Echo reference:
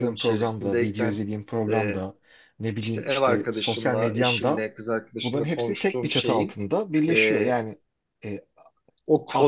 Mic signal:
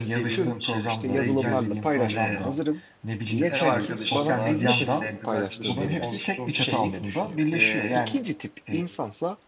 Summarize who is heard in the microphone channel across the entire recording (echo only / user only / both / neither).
both